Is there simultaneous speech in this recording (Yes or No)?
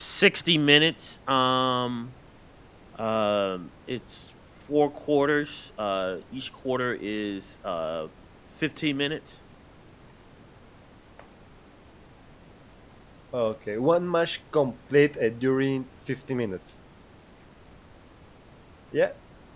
No